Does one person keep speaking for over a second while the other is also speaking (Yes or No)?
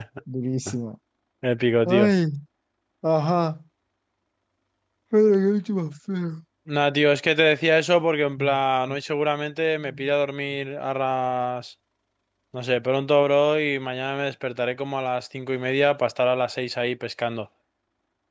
No